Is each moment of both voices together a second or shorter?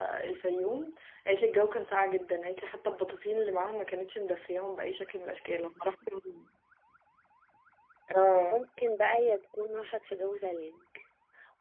Yes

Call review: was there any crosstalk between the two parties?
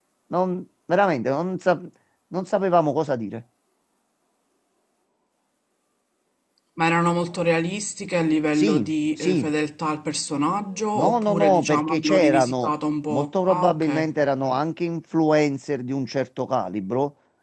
Yes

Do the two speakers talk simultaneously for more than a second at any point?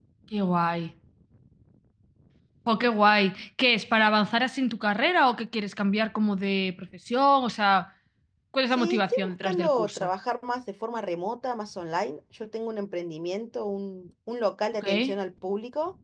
Yes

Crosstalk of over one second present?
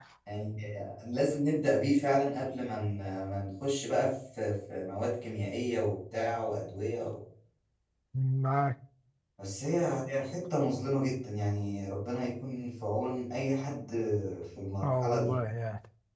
No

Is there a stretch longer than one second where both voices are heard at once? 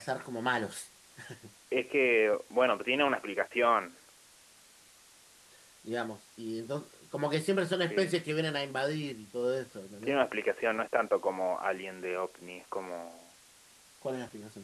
No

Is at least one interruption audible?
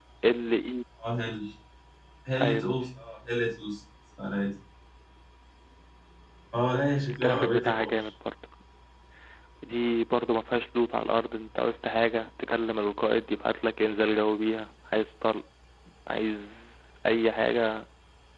Yes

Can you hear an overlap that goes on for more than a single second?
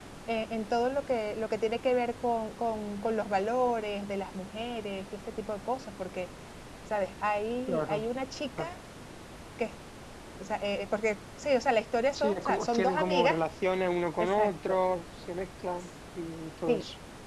Yes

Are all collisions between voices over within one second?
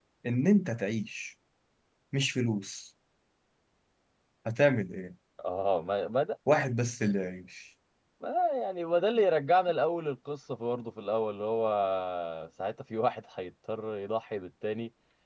Yes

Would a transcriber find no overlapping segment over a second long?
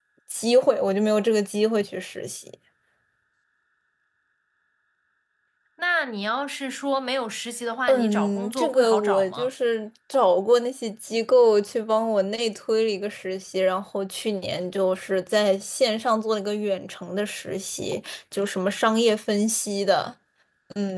No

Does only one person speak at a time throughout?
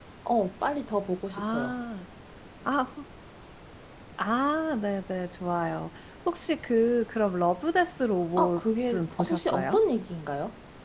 No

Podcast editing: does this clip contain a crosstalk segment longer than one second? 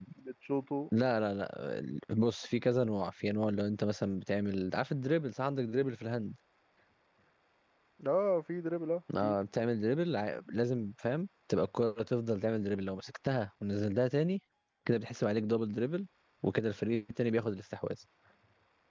No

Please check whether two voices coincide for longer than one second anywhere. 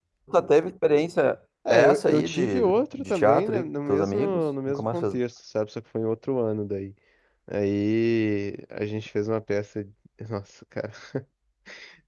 Yes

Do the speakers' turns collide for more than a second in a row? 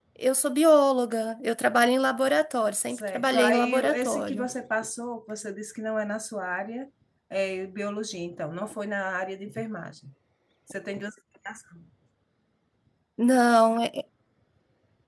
Yes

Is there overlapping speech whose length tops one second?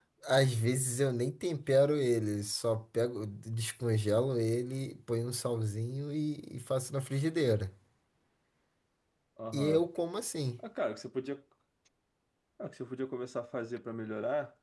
No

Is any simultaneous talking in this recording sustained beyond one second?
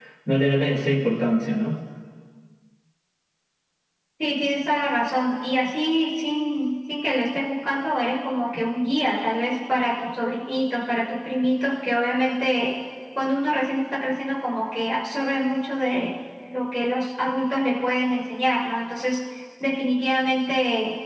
No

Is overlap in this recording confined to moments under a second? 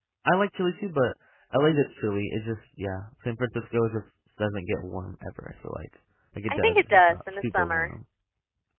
No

